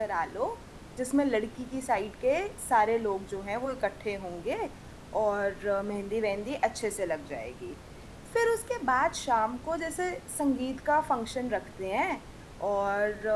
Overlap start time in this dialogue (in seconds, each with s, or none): none